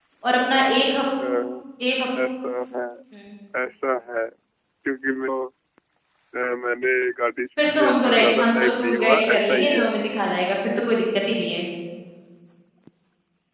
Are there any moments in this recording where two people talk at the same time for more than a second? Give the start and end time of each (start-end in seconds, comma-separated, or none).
7.8-9.9